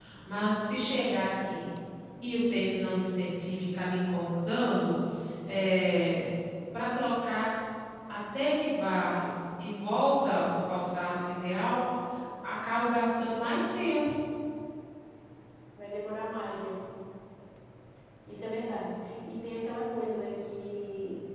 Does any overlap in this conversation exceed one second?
No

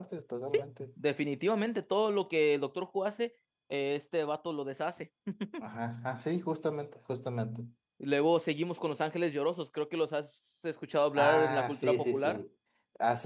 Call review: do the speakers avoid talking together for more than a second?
No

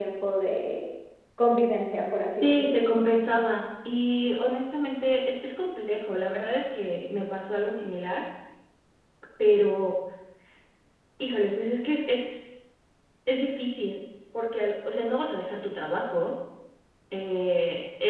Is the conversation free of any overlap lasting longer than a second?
Yes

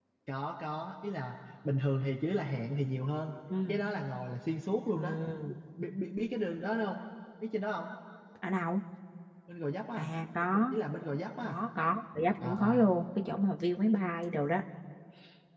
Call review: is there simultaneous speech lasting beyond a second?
No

